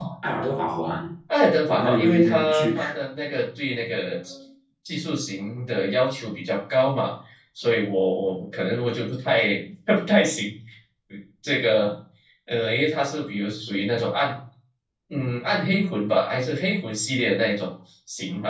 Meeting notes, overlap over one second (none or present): present